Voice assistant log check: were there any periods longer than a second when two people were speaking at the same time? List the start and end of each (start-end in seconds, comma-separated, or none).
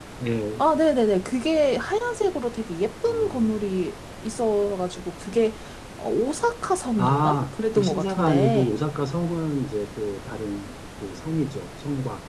7.0-8.6